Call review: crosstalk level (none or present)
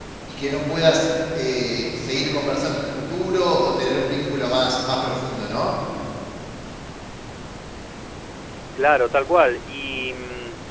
none